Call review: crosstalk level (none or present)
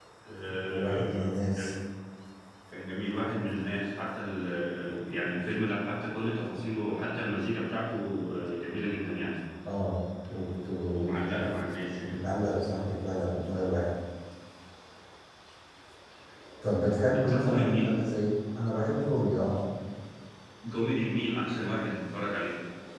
present